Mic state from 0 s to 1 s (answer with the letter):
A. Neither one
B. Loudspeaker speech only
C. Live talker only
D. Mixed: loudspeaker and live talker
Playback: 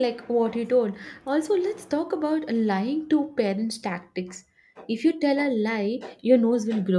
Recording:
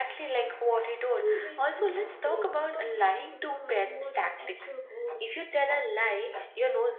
B